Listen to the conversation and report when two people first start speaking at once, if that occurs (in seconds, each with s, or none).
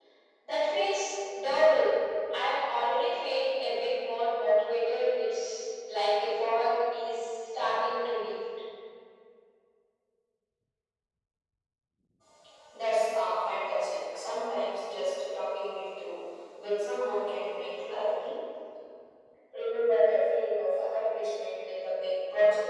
none